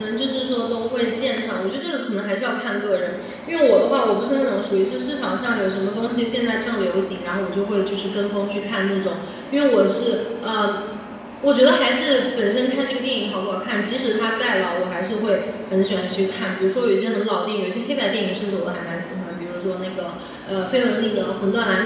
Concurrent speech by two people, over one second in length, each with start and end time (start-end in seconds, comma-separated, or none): none